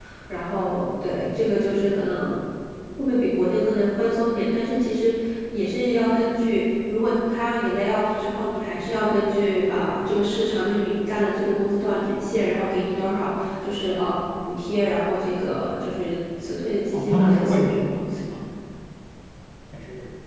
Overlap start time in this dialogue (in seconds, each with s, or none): 16.9 s